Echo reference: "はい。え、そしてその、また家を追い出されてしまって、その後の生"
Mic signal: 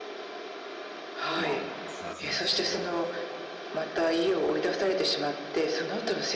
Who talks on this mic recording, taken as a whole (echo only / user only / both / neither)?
both